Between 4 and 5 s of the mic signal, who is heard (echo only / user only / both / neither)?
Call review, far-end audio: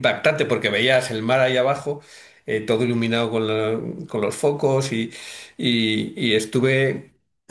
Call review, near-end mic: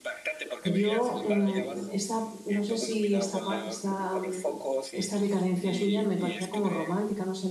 both